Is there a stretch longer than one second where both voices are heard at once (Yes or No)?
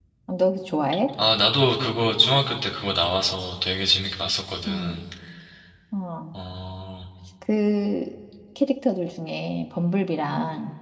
No